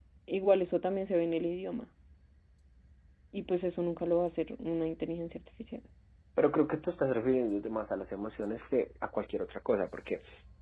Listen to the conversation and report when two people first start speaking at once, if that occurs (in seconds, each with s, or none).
none